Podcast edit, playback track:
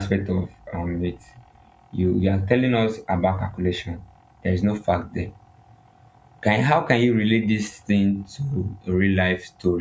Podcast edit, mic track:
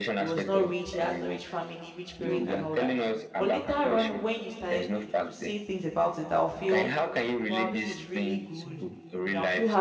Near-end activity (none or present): present